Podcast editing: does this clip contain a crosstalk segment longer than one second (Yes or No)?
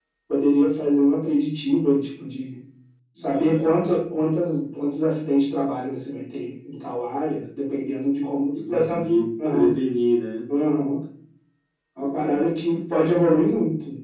Yes